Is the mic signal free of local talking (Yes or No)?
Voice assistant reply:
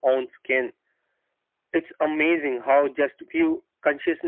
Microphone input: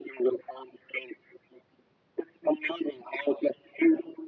Yes